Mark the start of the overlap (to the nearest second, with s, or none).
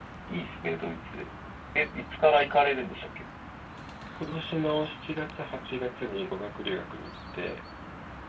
none